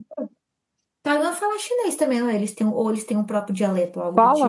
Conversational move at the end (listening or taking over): taking over